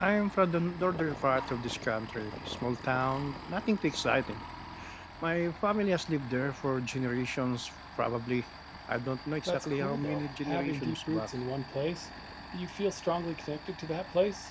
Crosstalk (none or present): present